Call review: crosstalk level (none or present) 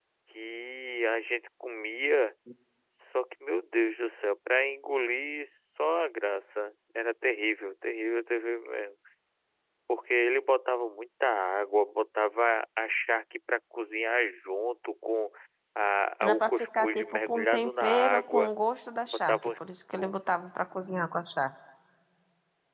present